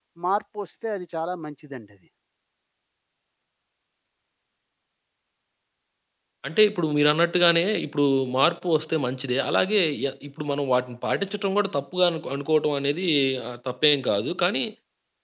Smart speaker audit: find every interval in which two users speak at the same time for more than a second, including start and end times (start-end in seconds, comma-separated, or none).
none